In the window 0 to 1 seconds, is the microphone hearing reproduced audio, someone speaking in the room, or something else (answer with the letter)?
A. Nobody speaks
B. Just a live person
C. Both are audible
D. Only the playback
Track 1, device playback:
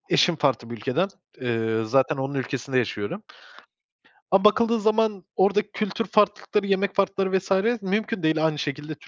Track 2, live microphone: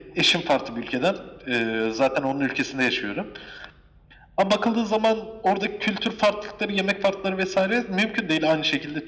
D